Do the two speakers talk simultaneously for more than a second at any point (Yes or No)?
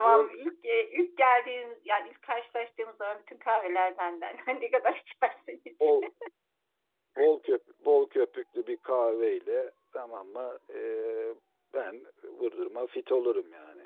No